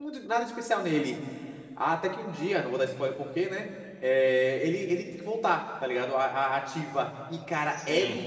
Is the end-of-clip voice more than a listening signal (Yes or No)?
No